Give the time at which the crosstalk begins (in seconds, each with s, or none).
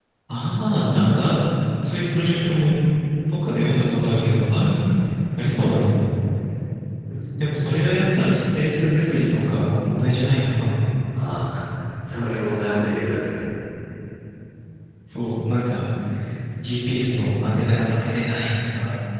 none